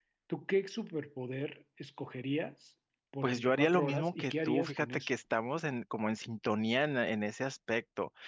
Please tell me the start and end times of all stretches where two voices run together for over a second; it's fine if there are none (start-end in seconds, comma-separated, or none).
3.2-5.1